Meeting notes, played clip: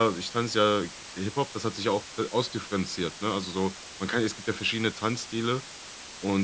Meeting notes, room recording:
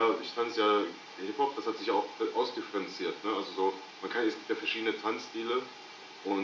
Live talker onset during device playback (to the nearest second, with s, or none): none